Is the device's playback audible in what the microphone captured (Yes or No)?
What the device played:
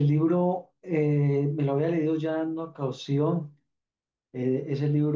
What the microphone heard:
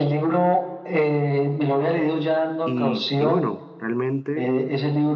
Yes